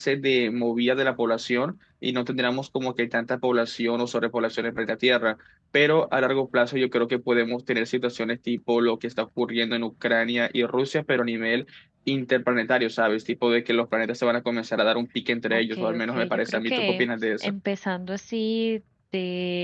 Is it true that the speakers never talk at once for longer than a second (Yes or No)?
No